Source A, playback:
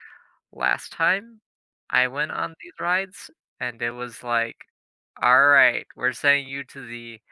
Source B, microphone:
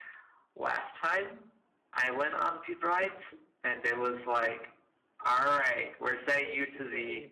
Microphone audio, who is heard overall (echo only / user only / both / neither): both